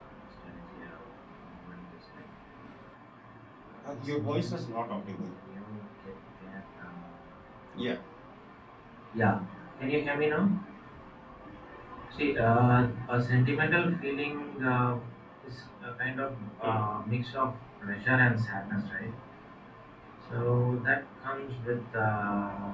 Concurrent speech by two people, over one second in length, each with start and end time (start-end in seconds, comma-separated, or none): 3.9-5.2